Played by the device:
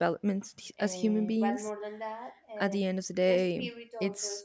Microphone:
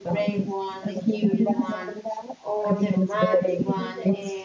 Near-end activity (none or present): present